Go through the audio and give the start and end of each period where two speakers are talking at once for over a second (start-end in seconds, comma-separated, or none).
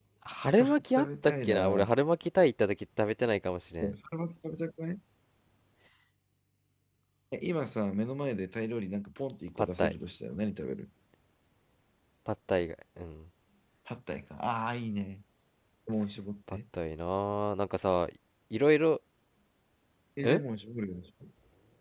0.6-1.9